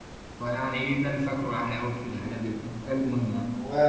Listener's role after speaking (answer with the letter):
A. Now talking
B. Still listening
A